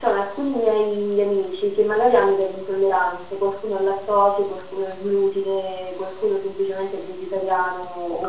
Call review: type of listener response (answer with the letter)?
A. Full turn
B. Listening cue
B